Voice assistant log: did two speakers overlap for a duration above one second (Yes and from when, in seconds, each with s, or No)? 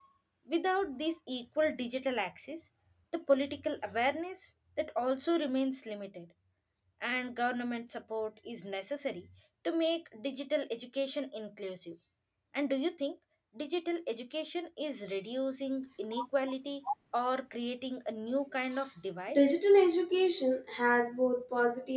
No